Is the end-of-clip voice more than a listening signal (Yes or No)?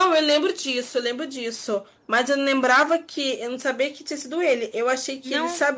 No